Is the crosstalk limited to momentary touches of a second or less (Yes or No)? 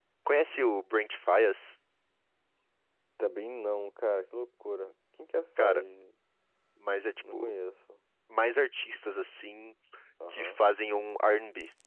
Yes